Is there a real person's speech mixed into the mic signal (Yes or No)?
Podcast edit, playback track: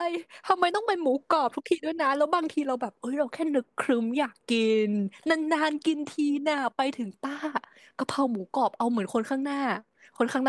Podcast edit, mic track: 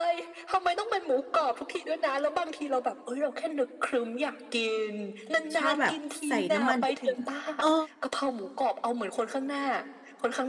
Yes